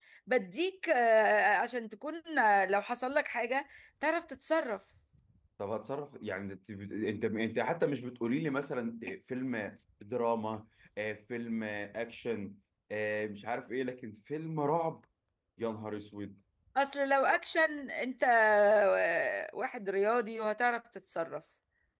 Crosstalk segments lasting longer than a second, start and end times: none

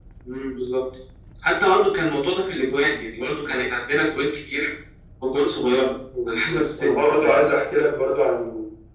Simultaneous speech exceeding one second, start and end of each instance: 6.3-7.5

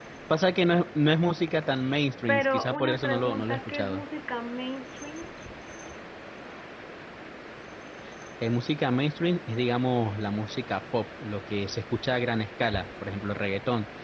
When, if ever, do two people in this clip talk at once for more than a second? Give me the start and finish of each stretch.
2.3-4.0

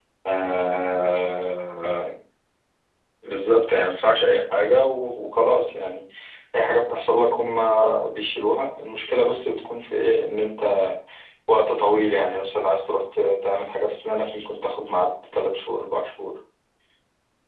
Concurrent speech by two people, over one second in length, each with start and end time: none

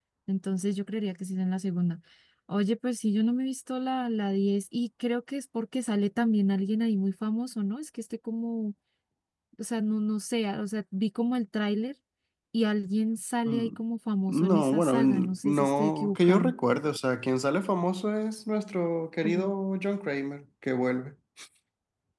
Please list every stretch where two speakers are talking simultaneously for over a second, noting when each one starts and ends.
14.3-16.5

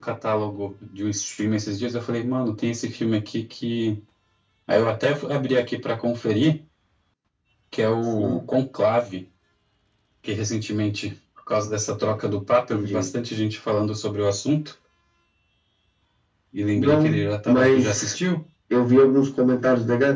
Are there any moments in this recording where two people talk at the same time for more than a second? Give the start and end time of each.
16.8-18.2

